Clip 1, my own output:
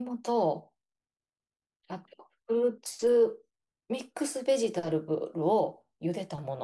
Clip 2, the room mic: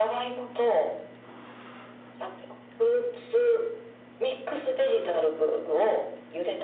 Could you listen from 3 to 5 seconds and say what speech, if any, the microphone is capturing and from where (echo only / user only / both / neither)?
echo only